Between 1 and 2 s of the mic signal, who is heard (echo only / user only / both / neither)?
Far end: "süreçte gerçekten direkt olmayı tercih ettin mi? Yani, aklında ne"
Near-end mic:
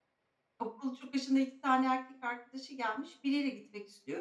user only